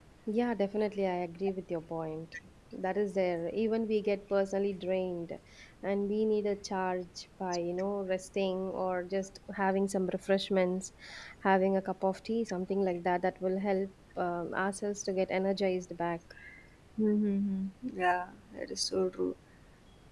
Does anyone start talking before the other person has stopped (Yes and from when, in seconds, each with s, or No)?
No